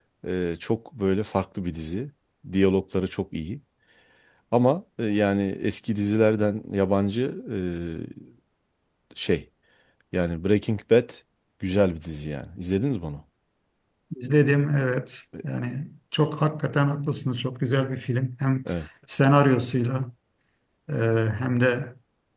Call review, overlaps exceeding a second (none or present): none